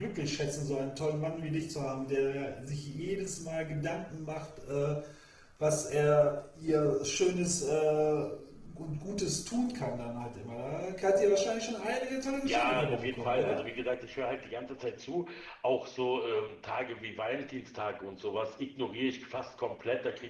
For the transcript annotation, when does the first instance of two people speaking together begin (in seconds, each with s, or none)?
12.2 s